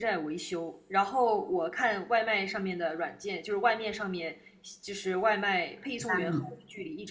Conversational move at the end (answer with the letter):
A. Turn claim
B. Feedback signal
B